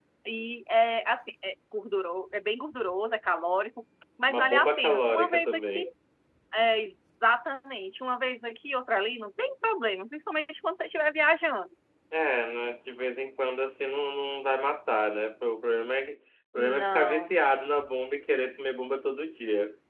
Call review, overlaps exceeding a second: present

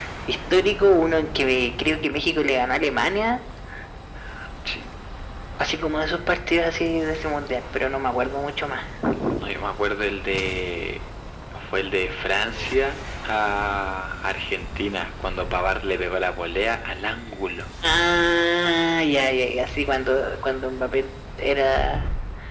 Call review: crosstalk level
none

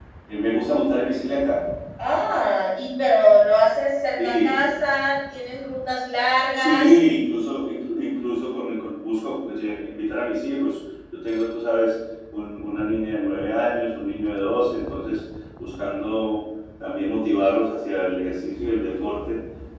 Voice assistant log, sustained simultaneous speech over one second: none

